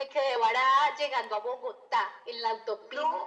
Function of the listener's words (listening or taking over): listening